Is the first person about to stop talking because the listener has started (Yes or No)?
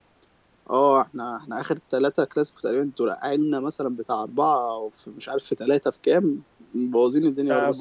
Yes